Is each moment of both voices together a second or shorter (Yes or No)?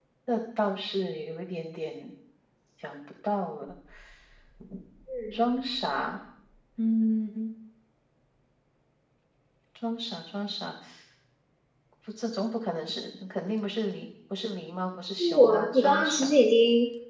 No